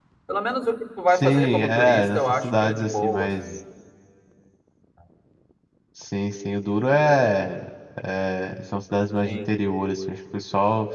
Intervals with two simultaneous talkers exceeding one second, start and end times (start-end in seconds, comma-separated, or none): 1.1-3.4